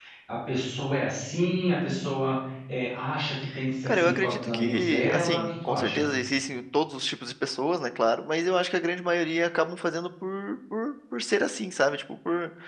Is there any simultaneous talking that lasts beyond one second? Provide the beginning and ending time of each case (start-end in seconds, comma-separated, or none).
3.9-6.0